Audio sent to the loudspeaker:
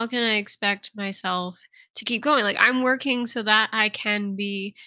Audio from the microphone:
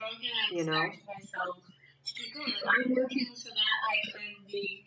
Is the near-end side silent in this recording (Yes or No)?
No